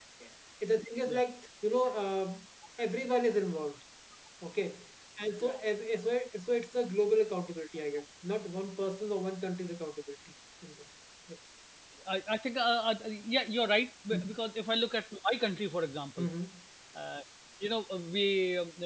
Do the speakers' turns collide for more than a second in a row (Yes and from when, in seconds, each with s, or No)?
No